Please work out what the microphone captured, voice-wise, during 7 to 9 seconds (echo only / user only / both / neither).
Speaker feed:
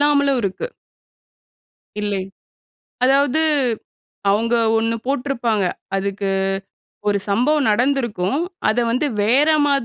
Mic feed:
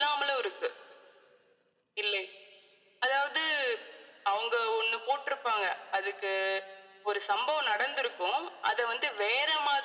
echo only